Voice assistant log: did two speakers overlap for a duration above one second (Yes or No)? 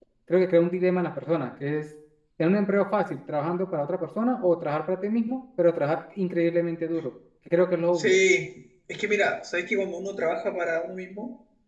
No